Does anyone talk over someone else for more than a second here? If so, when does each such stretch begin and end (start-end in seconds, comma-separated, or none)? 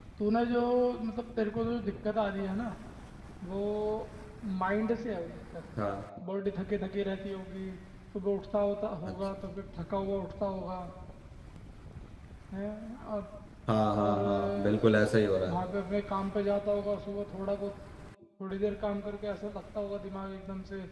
14.0-15.6